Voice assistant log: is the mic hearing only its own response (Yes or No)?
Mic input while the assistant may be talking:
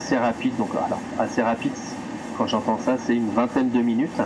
Yes